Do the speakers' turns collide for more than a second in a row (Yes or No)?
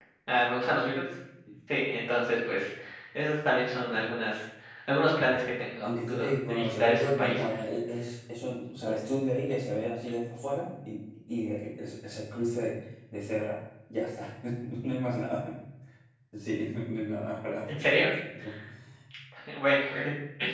Yes